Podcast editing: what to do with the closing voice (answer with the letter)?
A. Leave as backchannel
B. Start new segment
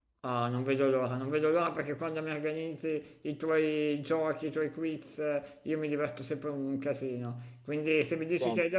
A